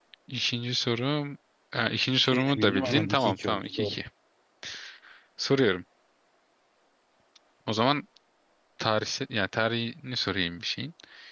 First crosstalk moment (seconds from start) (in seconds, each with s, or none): 2.2 s